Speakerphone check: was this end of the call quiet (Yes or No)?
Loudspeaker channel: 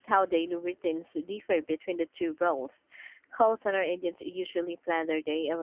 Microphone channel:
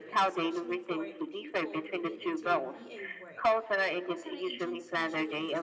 No